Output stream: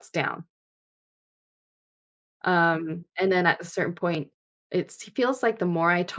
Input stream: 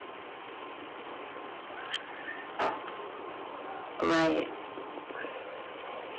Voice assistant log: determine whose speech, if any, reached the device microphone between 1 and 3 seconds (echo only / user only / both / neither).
neither